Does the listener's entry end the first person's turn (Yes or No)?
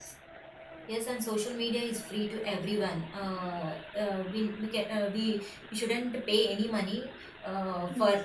No